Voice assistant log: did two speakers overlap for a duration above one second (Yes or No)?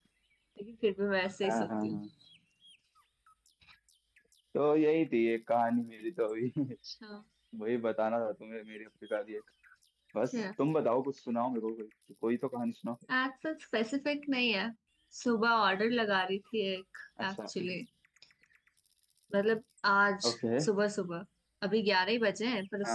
No